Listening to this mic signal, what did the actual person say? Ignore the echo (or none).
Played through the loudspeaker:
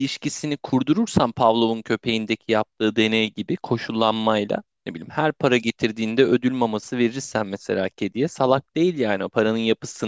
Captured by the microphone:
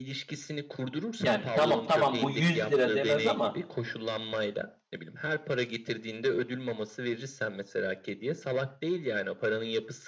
yani tamam tamam bu 100 lira demez ama